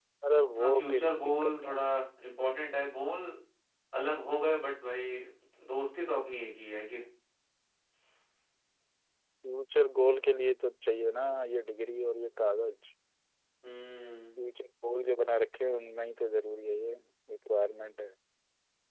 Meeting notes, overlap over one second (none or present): present